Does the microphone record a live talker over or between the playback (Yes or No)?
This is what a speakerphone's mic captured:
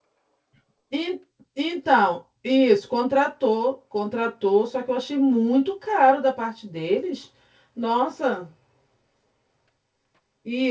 Yes